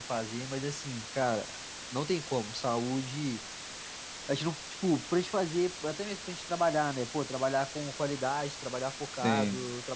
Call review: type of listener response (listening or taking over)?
listening